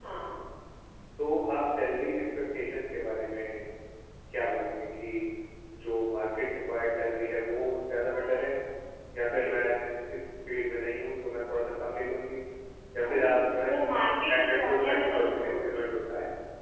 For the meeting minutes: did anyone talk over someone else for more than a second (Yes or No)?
Yes